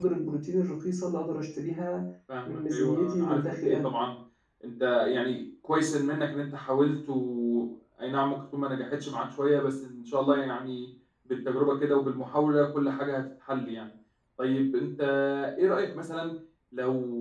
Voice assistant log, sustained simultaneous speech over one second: present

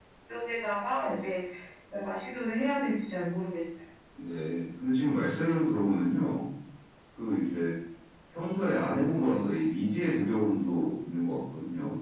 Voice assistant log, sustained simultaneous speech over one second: none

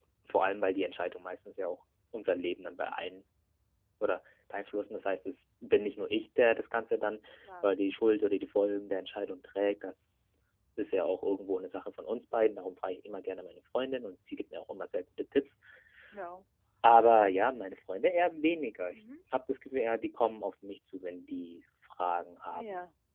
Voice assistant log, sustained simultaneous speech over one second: none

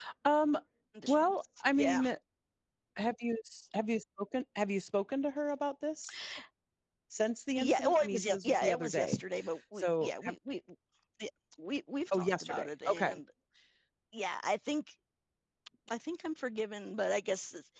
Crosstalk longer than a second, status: present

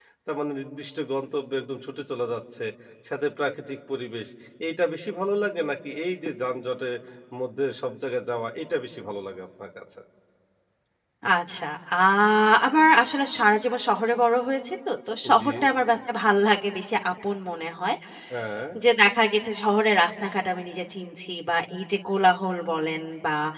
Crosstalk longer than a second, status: none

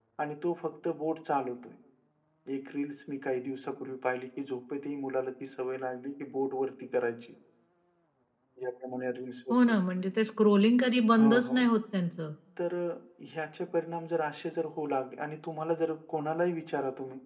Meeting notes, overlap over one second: none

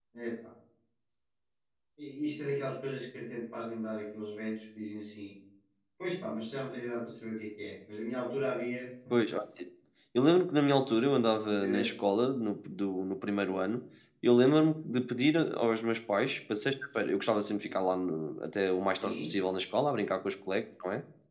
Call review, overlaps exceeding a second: none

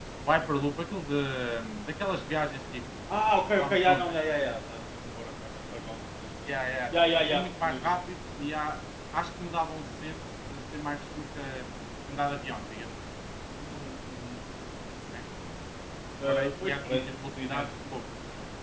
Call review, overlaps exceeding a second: present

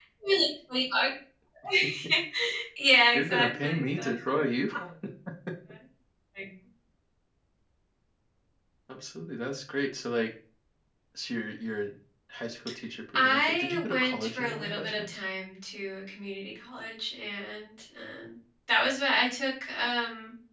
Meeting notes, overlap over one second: present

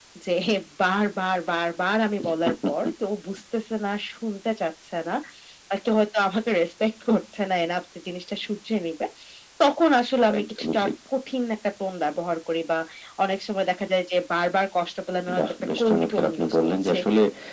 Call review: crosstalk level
present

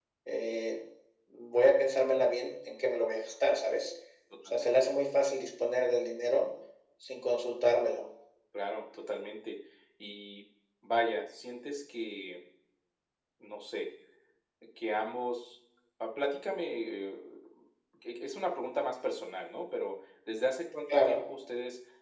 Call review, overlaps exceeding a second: none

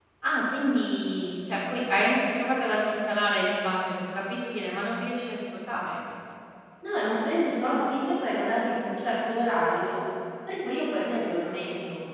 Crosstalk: none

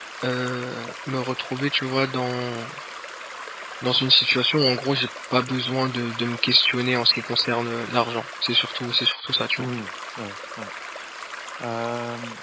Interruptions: none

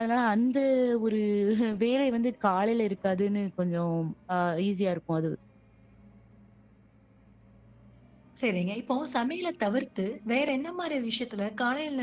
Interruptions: none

